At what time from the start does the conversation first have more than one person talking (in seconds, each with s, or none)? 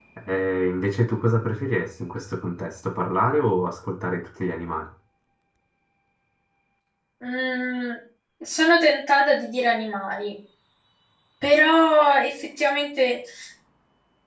none